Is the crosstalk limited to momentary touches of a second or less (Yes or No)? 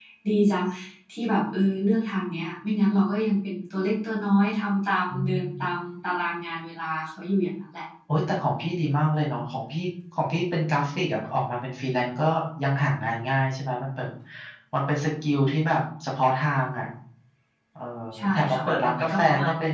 No